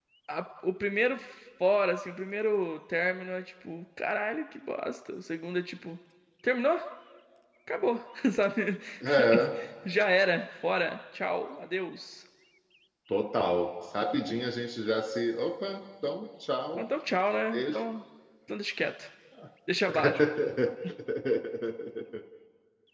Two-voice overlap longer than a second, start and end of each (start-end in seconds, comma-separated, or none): none